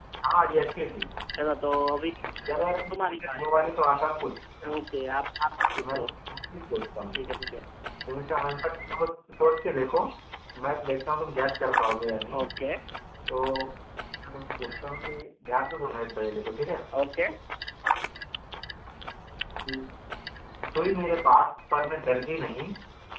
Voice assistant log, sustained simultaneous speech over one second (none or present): none